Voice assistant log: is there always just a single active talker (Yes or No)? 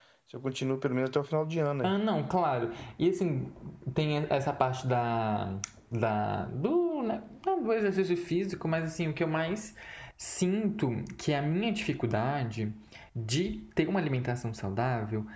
Yes